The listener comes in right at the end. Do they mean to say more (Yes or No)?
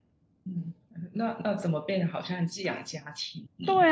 Yes